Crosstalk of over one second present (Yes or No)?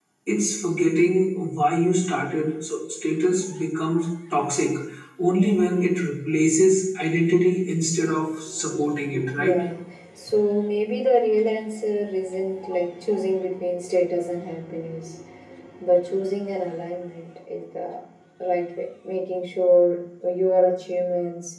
No